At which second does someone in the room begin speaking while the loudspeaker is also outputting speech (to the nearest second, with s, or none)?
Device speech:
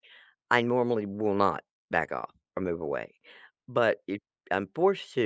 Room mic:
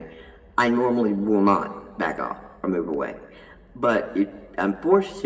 none